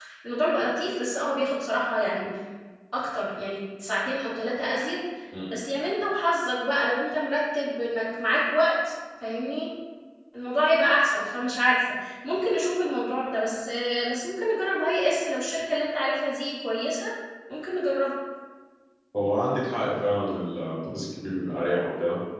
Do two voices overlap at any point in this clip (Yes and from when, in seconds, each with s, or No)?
No